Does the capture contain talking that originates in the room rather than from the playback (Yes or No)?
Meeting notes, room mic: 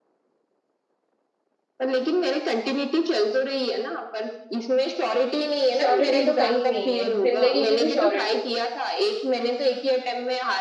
Yes